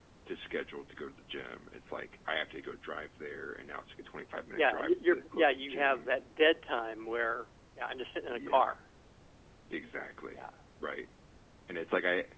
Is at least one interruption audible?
Yes, from 4.6 s

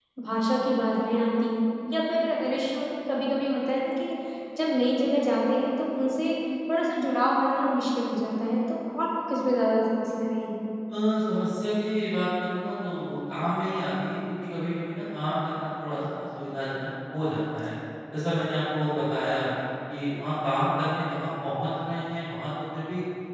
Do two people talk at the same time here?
No

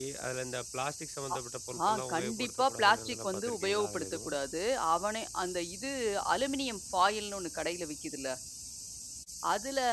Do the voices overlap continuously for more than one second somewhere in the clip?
Yes, from 1.9 s

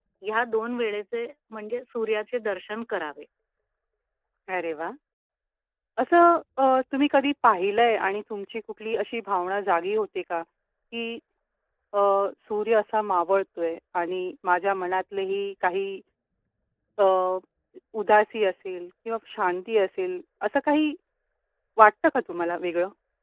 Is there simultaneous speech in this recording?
No

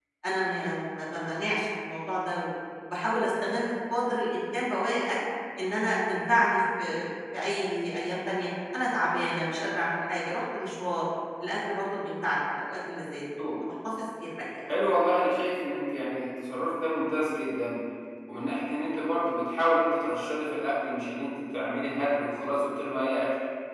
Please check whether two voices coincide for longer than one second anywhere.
No

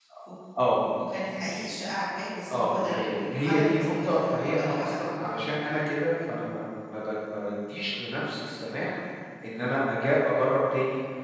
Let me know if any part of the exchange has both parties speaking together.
Yes, from 2.5 s

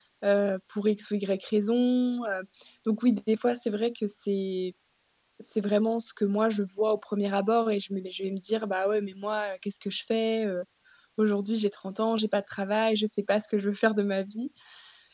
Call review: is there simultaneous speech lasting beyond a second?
No

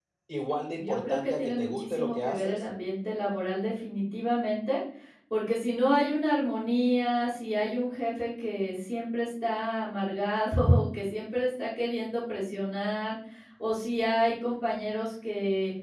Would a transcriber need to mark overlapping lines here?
Yes, from 0.8 s

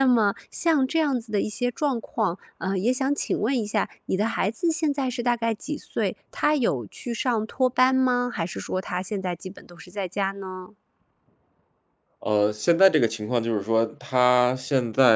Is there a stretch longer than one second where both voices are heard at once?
No

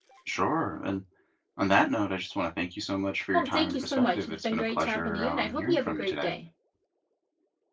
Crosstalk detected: Yes, from 3.3 s

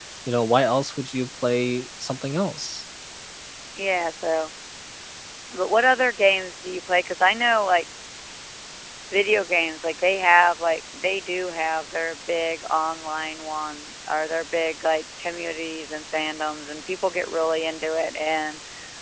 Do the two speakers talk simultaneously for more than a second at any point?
No

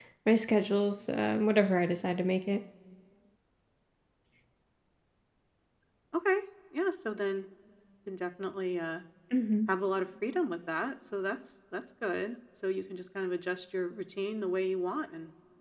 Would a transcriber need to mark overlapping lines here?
No

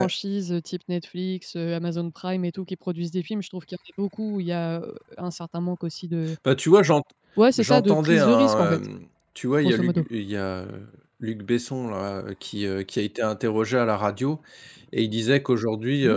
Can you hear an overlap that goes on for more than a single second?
Yes, from 7.6 s

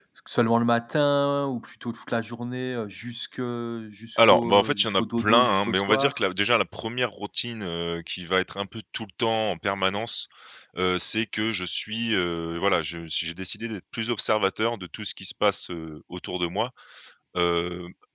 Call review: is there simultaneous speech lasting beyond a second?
Yes, from 4.2 s

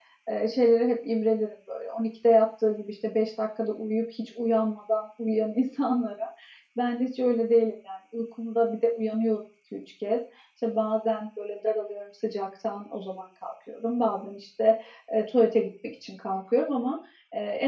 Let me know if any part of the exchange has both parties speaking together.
No

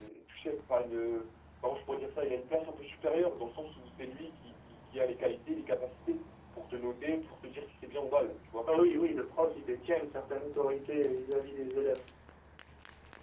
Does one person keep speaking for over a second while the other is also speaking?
No

